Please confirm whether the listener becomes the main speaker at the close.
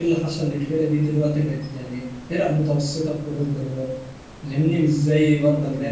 Yes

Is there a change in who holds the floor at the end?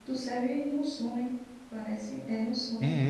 Yes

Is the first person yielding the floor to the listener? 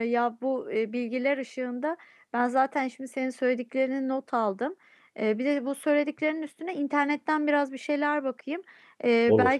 No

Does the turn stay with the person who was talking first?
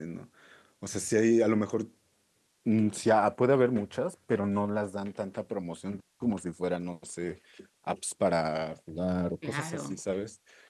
Yes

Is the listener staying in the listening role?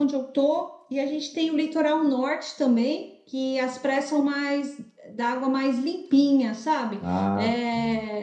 Yes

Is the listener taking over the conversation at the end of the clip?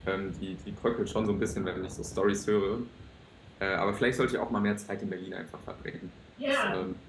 Yes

